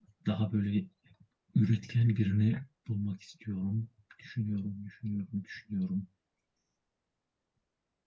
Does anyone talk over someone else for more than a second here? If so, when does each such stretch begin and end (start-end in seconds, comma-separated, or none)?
none